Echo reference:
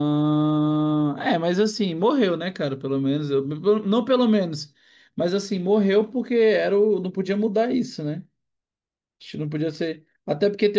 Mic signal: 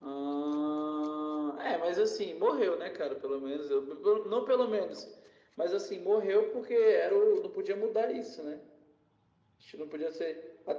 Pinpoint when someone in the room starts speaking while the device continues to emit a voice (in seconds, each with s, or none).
none